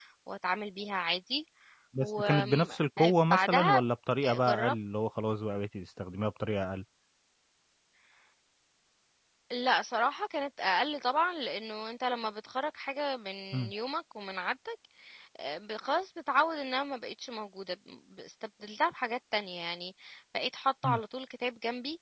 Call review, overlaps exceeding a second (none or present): present